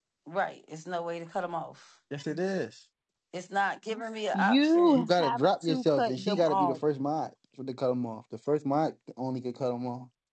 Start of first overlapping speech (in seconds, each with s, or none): 4.3 s